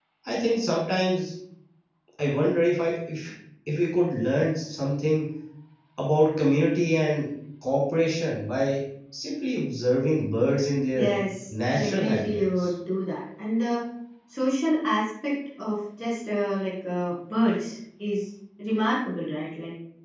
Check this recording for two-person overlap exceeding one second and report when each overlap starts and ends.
11.5-12.7

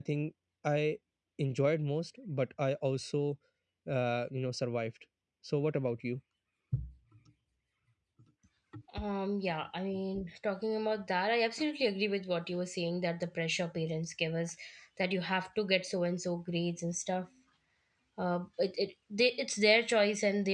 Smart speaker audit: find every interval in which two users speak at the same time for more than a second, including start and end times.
none

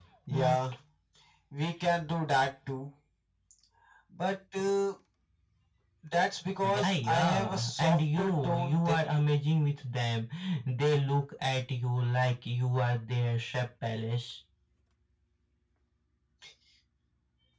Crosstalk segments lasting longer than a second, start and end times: 6.6-9.2

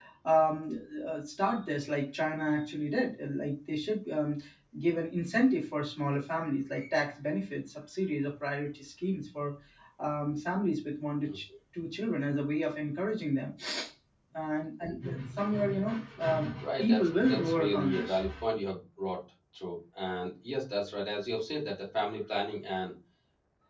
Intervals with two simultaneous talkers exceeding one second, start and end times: 16.8-18.2

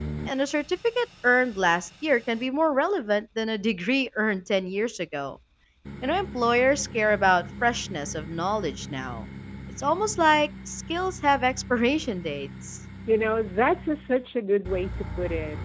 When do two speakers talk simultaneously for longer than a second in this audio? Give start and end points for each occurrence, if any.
none

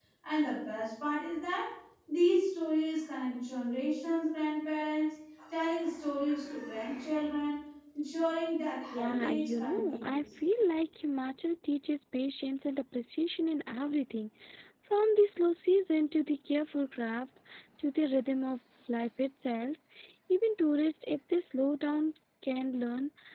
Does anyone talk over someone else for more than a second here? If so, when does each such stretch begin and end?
8.9-10.2

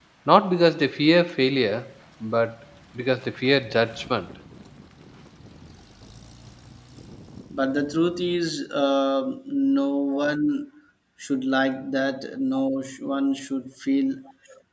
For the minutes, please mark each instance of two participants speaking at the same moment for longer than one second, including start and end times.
none

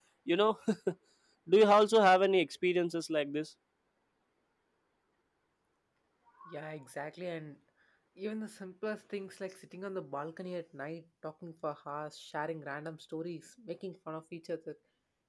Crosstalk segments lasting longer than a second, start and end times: none

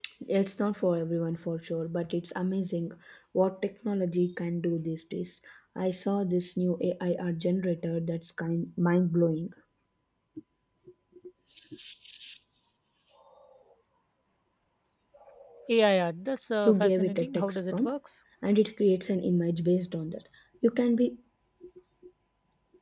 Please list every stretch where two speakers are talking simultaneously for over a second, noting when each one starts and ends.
16.6-17.9

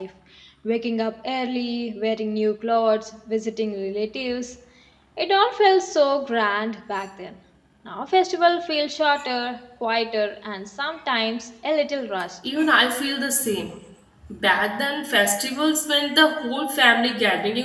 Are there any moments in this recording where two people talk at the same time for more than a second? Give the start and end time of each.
none

